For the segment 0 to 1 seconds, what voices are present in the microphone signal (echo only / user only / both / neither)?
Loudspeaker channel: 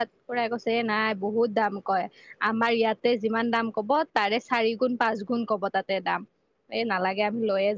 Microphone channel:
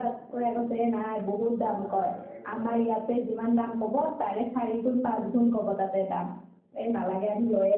echo only